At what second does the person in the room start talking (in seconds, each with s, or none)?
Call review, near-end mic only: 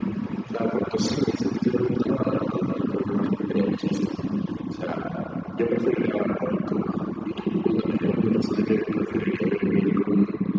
none